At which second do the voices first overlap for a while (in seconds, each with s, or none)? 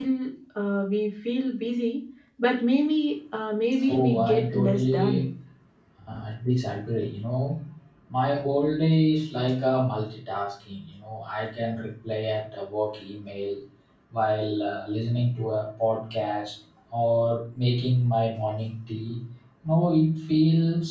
3.9 s